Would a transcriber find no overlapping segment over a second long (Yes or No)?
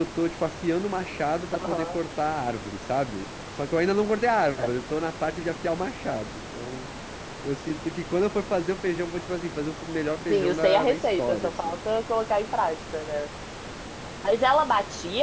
No